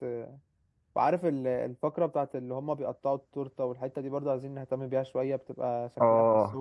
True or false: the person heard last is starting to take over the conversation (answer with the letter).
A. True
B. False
A